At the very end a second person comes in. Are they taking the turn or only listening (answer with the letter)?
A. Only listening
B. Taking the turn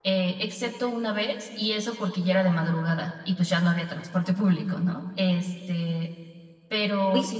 A